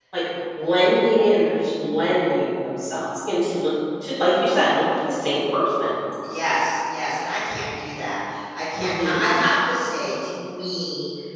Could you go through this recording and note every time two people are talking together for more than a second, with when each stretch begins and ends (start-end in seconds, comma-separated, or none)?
none